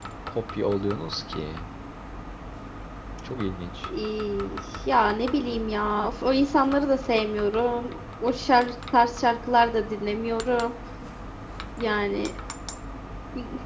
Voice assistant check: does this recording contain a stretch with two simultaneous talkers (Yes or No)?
No